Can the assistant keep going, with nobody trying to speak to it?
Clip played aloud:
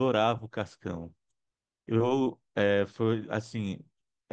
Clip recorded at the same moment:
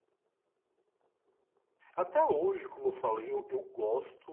No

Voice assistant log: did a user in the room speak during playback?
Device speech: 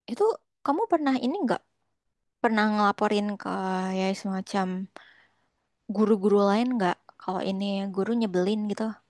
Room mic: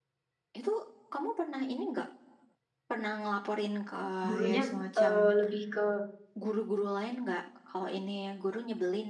Yes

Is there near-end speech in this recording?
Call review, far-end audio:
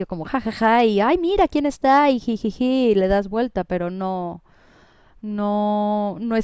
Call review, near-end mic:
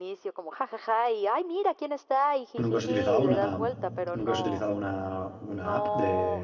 Yes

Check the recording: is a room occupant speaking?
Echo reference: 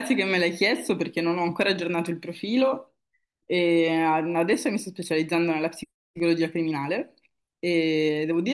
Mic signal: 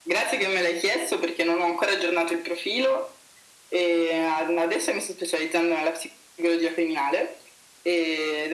No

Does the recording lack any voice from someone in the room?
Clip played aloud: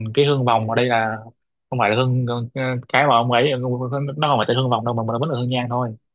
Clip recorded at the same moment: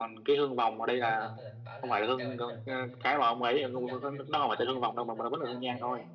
No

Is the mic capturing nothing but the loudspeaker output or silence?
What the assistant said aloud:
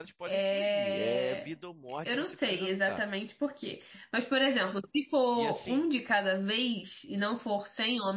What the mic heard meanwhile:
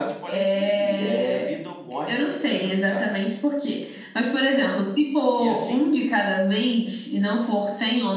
Yes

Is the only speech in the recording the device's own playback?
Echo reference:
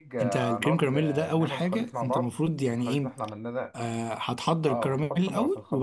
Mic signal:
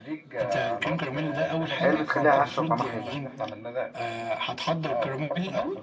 No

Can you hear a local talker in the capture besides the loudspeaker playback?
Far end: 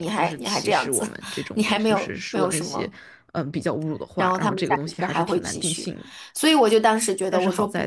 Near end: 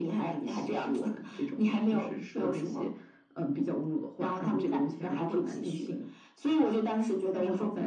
No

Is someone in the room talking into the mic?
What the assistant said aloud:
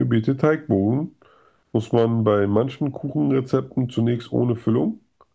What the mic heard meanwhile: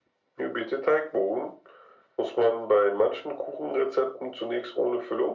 No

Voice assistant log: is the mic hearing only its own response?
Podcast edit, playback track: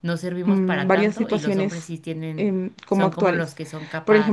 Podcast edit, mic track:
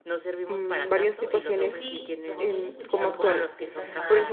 No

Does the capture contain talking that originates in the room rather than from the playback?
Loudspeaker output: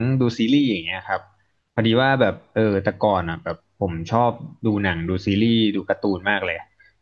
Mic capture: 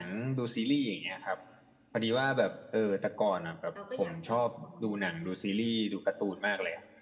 Yes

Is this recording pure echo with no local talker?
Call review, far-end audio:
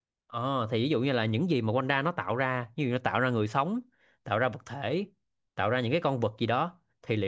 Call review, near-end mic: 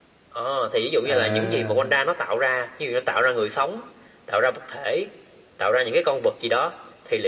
No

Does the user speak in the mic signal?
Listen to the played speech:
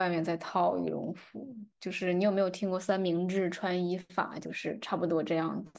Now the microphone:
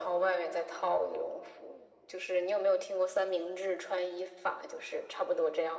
No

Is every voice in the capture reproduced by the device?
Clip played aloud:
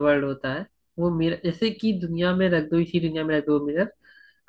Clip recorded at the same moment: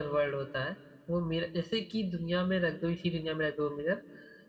Yes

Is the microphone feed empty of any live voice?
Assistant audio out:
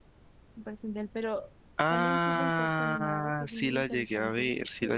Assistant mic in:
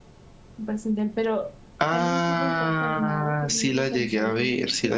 Yes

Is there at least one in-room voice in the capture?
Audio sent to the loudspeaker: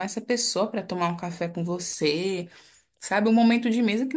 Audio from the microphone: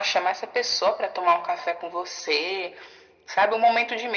No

